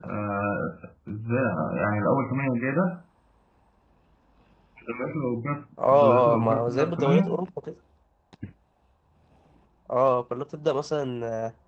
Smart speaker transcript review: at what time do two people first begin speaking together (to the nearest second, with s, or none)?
6 s